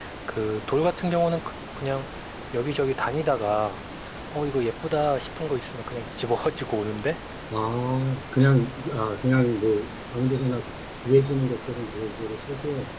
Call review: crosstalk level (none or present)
none